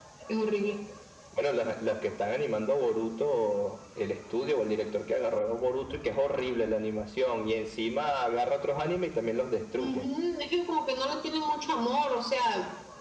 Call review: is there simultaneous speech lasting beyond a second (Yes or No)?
No